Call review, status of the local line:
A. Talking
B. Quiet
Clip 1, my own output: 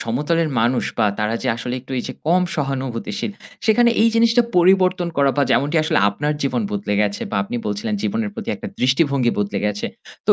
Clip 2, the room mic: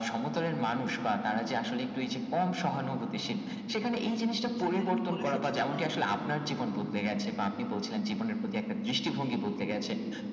A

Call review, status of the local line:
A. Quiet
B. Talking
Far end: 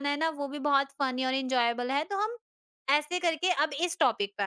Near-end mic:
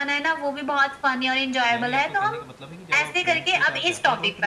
B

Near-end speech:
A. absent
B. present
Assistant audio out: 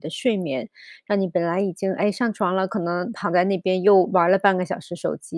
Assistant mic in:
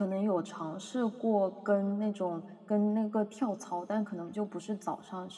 B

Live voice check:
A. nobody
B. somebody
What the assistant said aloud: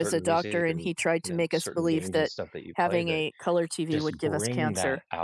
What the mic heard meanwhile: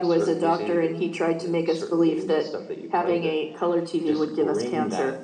A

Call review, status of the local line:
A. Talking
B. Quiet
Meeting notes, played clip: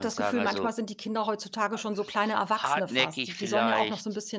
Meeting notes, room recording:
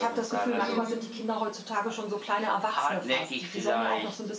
A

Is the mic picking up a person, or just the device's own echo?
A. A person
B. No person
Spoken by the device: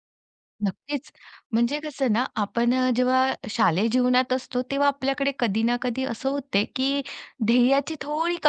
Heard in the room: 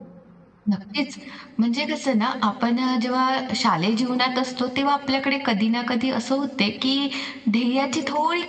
B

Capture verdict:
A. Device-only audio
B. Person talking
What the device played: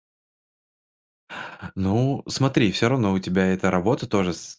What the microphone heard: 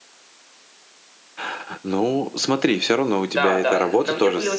B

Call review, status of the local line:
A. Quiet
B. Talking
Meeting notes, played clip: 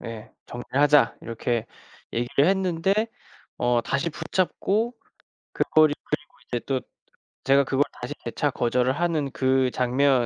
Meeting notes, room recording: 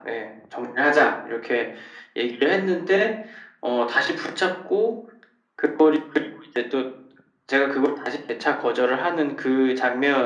A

